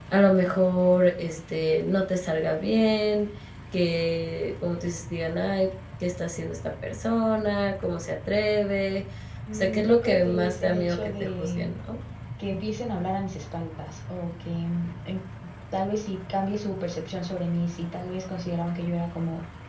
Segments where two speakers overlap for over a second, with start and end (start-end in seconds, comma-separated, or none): 9.5-11.7